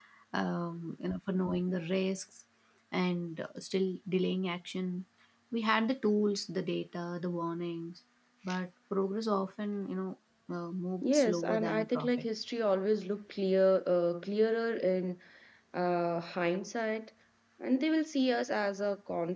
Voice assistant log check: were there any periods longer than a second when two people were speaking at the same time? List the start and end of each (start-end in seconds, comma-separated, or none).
11.0-12.2